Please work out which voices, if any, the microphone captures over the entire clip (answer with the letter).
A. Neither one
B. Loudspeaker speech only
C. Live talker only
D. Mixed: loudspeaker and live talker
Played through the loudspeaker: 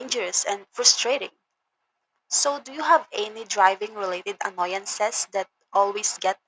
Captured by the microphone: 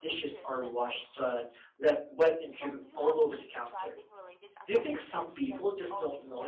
D